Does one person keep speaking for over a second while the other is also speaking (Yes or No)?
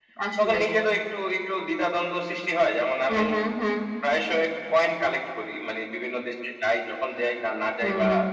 No